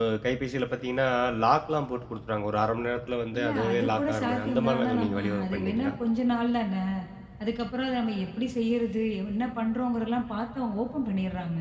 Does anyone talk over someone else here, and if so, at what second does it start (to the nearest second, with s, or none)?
3 s